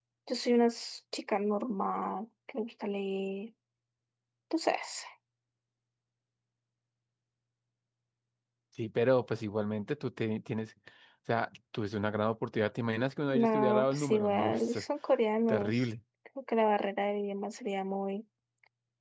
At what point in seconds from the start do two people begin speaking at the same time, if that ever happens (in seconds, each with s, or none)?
13.3 s